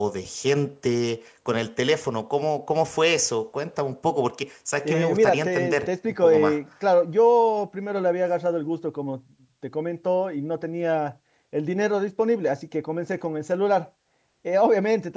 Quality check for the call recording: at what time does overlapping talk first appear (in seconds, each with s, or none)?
4.8 s